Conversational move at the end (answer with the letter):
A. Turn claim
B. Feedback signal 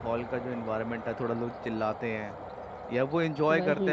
B